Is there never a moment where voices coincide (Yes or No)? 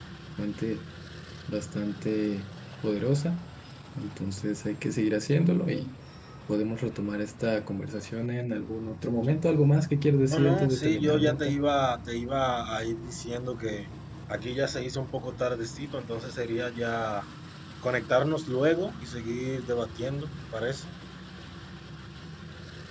No